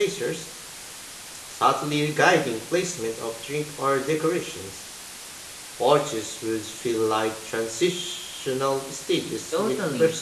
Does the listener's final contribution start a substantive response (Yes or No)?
Yes